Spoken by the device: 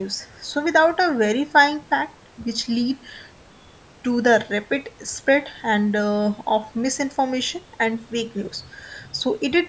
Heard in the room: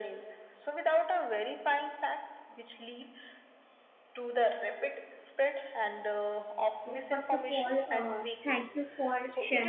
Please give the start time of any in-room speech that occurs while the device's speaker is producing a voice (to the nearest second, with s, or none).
7 s